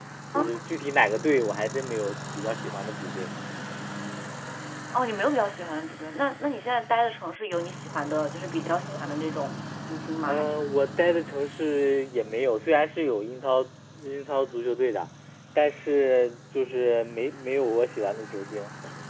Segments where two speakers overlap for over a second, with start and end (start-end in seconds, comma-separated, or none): none